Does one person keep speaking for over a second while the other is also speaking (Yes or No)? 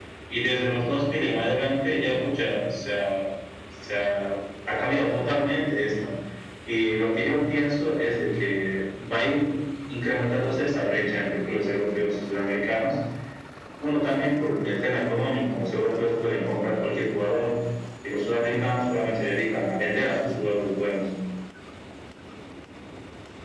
No